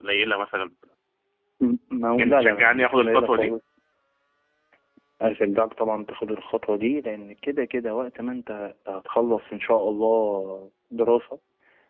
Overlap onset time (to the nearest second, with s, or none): 2 s